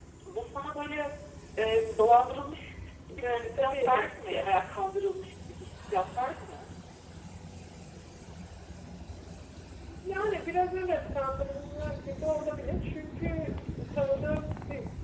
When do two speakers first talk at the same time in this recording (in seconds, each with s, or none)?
3.2 s